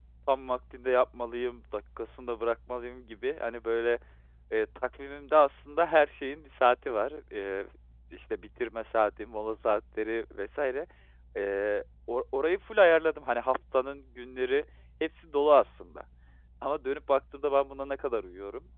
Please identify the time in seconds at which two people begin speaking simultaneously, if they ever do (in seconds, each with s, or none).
none